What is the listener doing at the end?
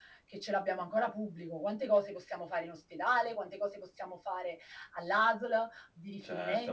taking over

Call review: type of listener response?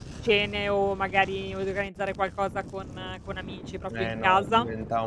taking over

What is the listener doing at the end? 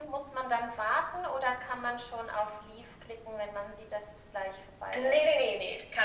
taking over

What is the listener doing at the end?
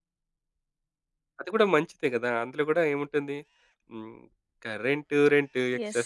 listening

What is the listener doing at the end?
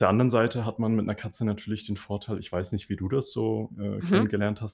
listening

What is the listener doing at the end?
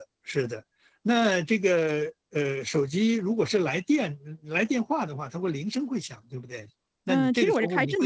taking over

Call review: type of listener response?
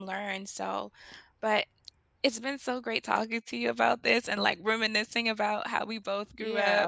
taking over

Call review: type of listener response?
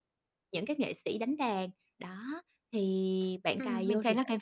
taking over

